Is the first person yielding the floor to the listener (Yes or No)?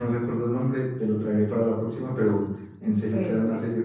No